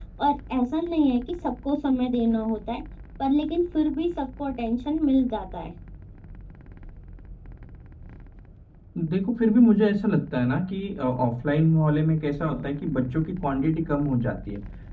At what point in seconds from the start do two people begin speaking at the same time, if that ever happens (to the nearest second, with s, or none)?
none